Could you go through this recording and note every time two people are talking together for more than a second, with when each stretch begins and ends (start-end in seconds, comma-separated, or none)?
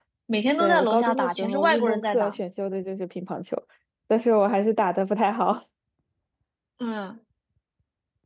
0.6-2.4